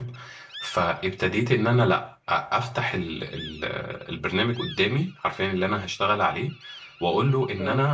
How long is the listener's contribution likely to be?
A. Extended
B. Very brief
B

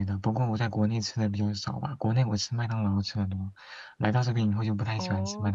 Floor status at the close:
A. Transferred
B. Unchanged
A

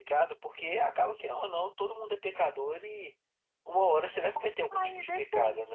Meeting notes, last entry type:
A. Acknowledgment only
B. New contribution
B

